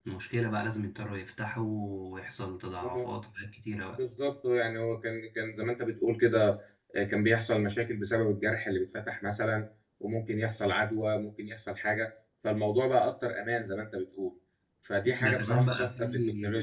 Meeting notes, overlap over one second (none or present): present